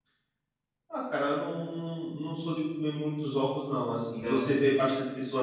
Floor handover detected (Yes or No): No